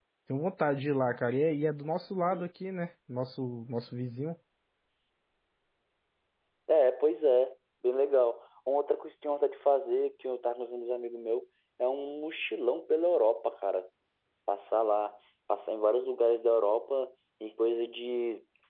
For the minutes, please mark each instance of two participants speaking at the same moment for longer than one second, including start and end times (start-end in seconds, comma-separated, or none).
none